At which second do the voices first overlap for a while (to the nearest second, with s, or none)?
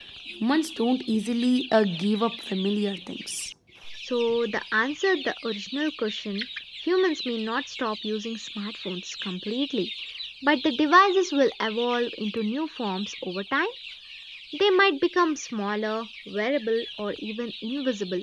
none